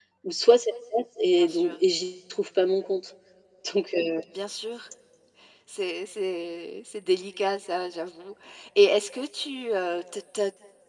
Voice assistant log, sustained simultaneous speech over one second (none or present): none